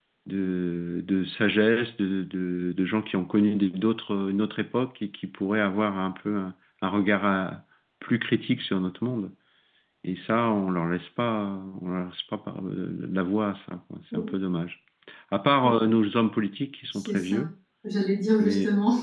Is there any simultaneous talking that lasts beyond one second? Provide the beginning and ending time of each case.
none

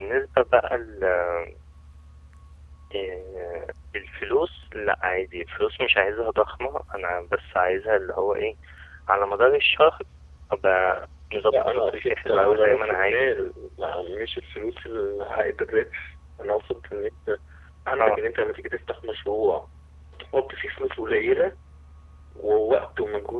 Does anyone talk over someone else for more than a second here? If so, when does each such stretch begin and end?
11.5-13.3

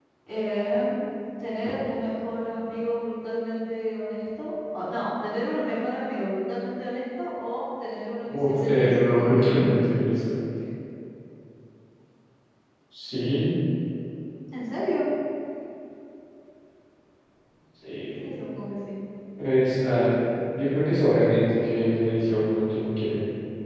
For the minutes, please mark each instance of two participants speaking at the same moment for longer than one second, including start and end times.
8.3-10.0

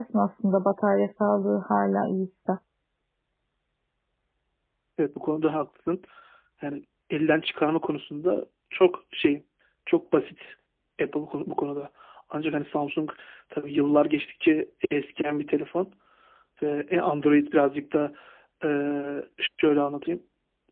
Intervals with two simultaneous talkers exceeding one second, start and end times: none

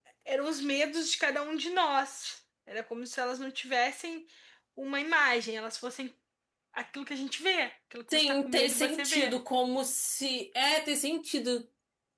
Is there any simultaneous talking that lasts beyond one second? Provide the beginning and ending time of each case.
8.1-9.3

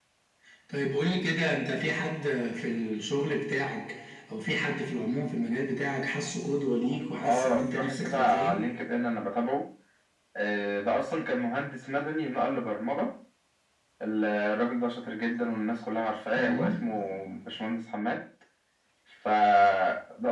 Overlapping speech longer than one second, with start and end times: 7.2-8.6

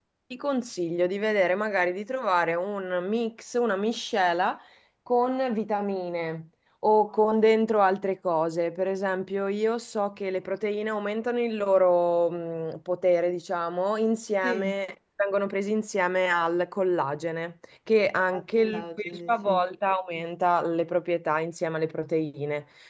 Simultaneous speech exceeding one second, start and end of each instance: 18.3-19.6

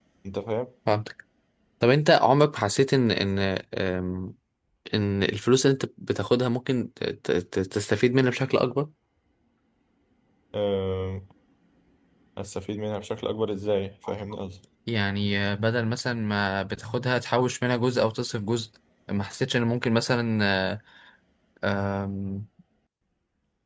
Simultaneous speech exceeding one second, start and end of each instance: none

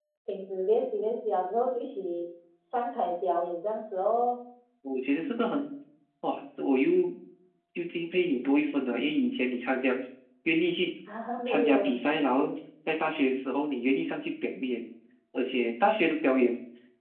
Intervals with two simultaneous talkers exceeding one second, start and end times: none

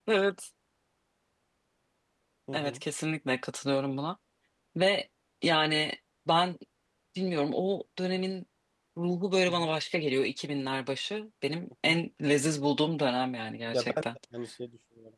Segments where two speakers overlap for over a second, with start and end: none

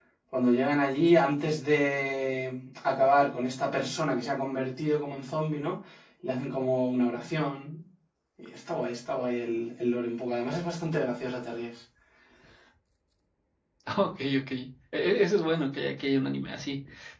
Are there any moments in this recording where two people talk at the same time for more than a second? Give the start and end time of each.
none

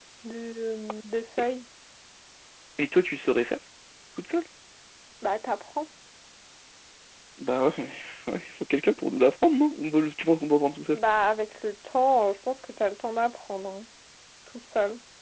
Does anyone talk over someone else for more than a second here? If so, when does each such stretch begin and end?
none

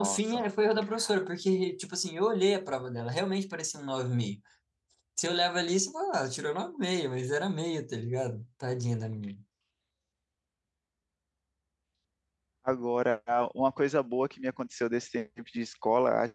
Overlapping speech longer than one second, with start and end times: none

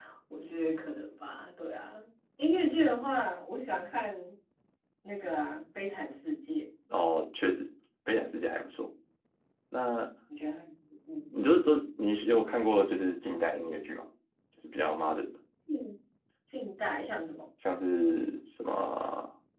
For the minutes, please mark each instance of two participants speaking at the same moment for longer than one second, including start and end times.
none

